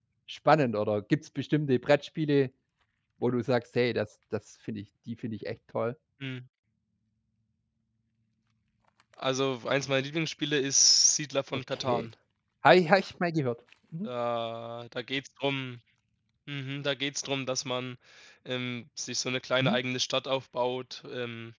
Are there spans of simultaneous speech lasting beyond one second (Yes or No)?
No